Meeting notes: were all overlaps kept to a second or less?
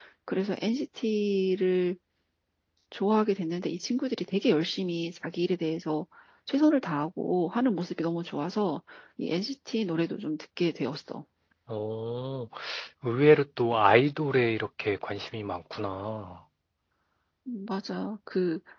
Yes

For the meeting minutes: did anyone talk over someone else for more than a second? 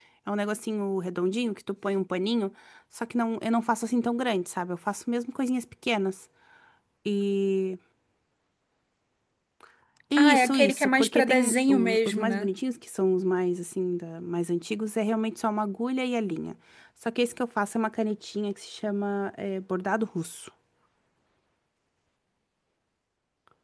Yes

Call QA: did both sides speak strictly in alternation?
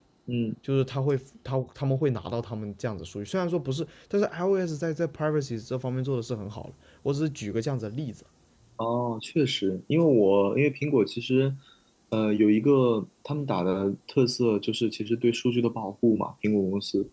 Yes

